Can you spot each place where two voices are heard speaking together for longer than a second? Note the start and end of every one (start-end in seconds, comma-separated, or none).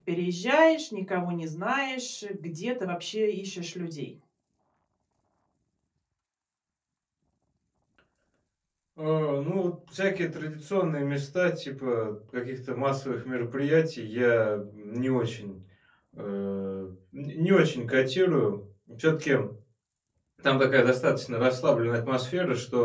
none